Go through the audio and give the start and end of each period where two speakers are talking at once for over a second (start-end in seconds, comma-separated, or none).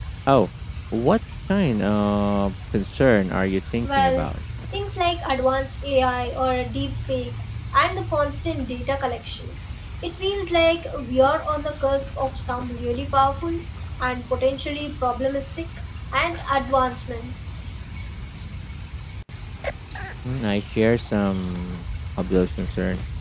none